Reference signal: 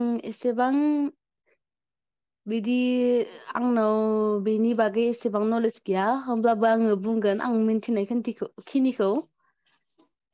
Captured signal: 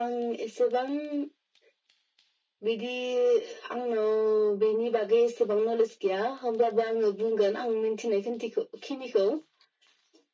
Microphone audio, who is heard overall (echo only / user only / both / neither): echo only